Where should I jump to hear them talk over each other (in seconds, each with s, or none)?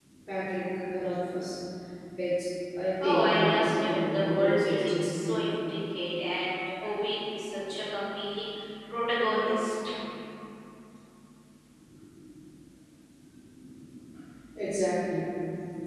3.0 s